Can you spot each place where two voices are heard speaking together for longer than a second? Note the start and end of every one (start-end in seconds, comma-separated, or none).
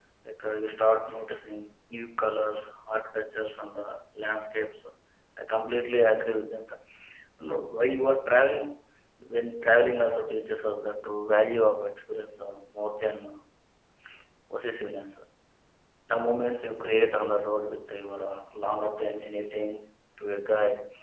none